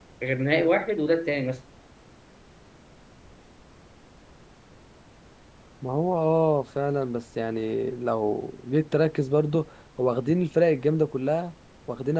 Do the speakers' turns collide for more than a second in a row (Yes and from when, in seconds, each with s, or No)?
No